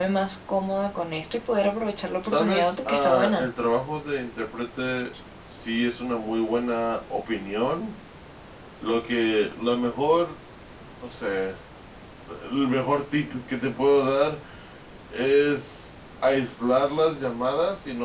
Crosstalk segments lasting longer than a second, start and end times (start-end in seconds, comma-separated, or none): 2.3-3.5